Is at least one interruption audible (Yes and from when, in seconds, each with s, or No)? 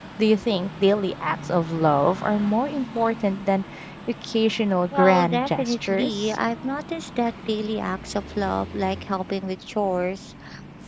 Yes, from 4.9 s